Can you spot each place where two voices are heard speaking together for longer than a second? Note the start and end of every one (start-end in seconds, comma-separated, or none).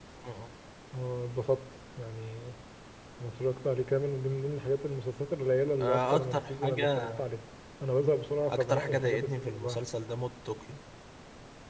5.8-7.2, 8.5-9.8